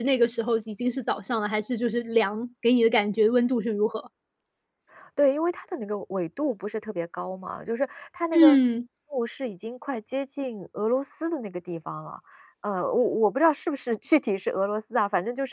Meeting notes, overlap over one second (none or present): none